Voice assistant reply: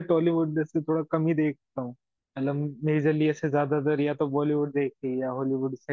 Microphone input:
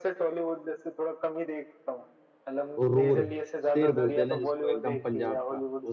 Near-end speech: present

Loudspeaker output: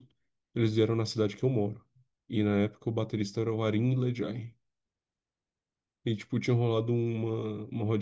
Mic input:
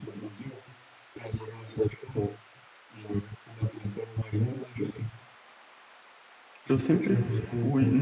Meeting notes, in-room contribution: present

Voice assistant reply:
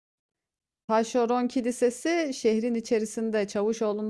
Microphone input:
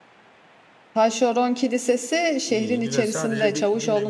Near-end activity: present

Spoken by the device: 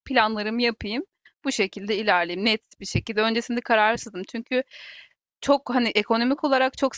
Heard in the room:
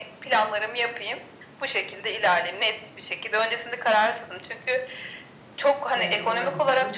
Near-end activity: present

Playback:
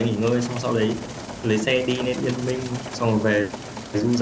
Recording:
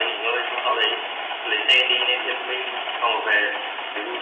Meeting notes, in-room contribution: none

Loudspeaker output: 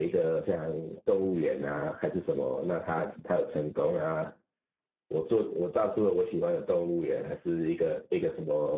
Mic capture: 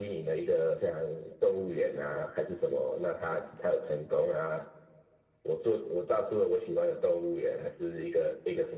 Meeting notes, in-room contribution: none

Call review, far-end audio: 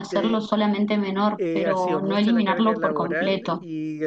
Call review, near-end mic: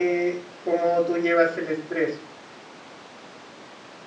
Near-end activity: present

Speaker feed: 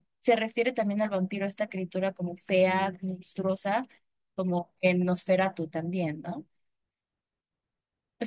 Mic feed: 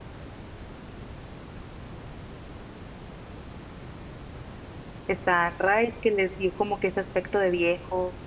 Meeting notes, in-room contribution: present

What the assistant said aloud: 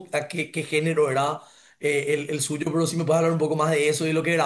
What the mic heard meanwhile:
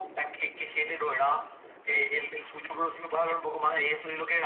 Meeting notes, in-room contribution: none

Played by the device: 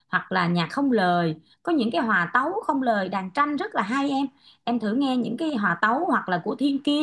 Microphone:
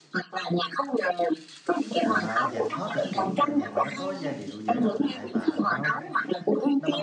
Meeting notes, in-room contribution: present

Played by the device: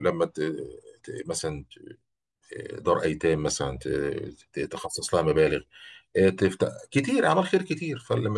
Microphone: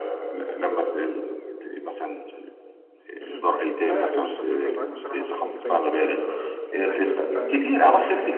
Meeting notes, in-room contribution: present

